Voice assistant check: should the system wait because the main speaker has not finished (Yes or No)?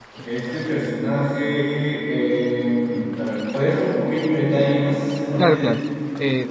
No